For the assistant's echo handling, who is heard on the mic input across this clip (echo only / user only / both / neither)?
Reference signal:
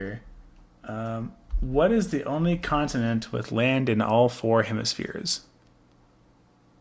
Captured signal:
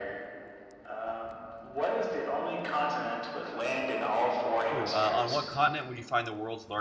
both